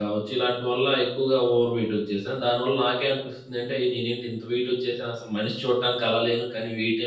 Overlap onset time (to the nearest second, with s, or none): none